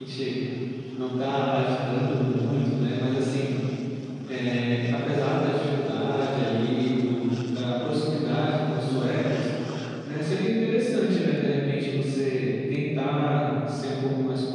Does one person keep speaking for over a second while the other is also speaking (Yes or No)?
No